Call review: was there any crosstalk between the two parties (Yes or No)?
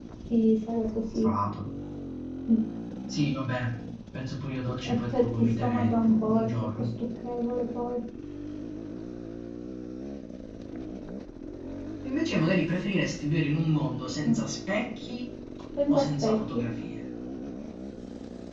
Yes